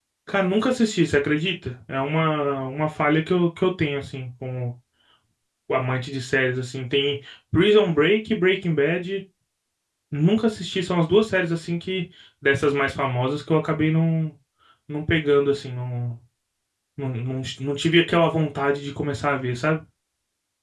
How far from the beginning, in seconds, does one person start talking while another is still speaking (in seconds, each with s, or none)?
none